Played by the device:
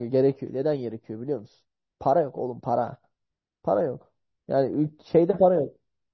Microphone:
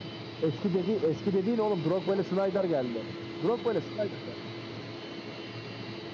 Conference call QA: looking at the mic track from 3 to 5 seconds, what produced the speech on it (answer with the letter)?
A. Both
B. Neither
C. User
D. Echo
C